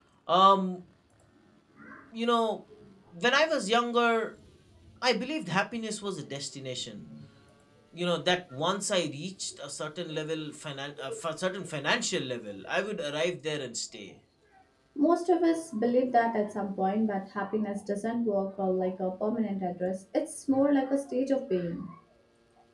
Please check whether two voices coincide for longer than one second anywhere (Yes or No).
No